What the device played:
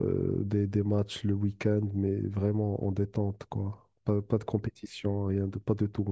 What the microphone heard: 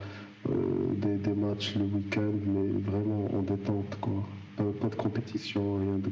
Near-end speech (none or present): none